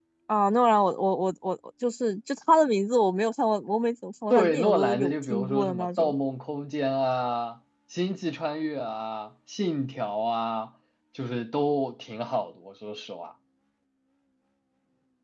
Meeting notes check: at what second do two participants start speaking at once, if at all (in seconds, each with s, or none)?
4.3 s